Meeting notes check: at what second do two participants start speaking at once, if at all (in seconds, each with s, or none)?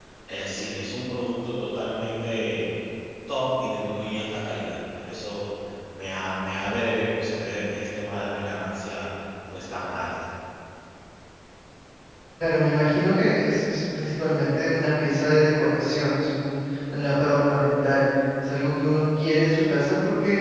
none